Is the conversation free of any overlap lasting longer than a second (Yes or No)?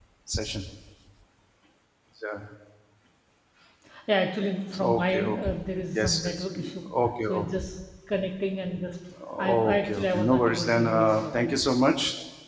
No